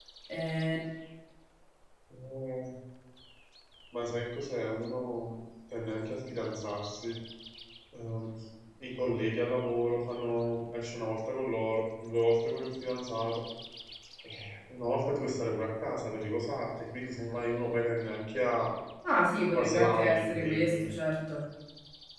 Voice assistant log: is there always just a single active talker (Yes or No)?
No